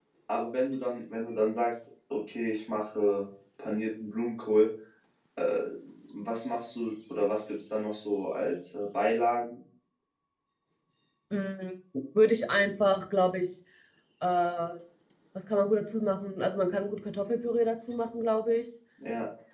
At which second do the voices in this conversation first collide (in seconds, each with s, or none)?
none